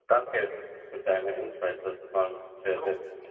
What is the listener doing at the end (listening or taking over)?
taking over